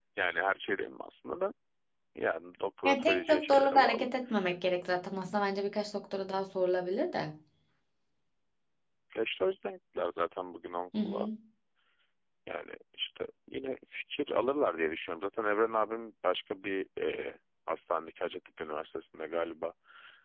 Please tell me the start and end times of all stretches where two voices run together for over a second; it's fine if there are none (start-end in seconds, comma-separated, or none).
2.8-4.1